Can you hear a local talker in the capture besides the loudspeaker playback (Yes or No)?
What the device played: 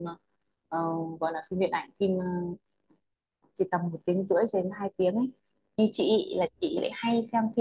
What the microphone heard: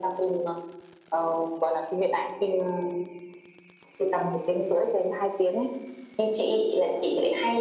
No